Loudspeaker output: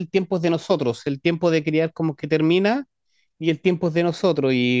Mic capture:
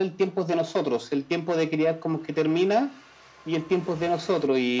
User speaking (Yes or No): No